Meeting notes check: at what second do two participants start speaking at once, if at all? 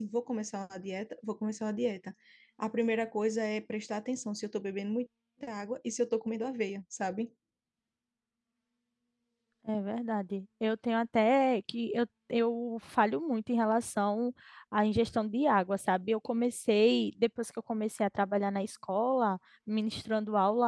none

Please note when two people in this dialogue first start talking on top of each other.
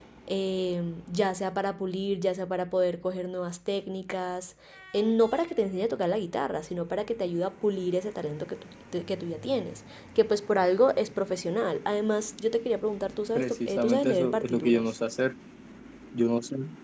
13.3 s

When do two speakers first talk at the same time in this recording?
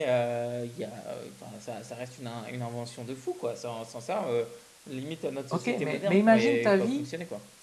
5.5 s

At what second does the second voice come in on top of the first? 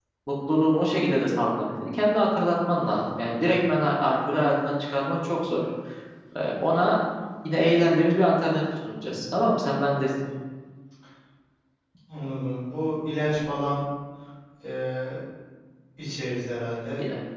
none

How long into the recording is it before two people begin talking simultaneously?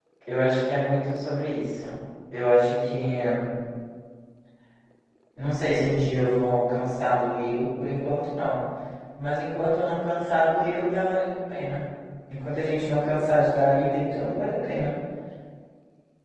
none

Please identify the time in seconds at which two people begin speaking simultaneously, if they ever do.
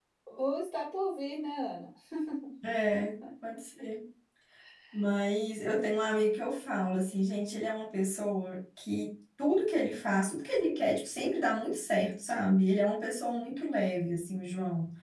none

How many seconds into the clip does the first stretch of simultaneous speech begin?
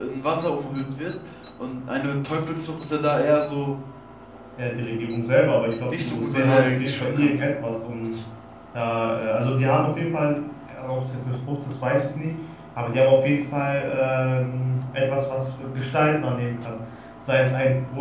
5.9 s

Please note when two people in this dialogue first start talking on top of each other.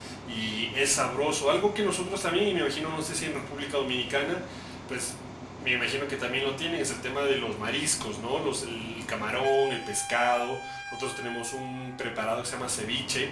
none

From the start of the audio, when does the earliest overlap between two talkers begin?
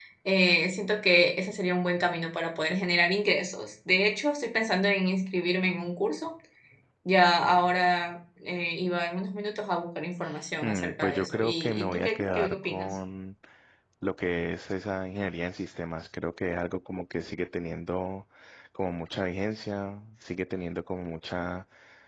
10.6 s

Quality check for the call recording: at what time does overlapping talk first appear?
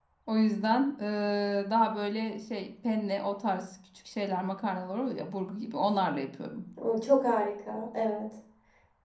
none

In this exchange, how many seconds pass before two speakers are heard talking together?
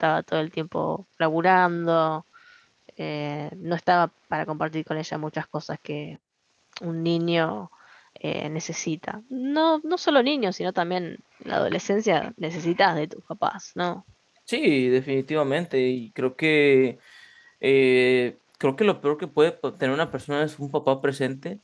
none

